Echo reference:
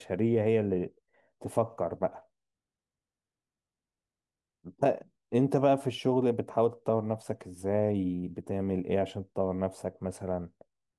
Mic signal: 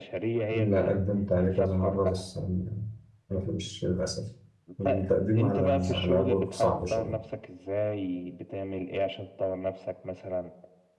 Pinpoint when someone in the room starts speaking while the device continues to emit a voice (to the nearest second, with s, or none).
1 s